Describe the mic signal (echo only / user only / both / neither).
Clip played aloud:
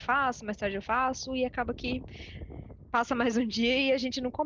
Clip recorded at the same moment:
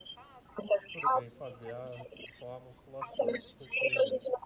both